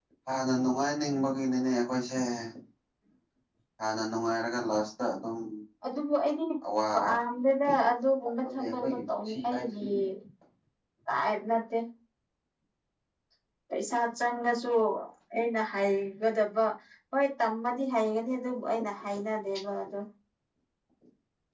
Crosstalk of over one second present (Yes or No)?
Yes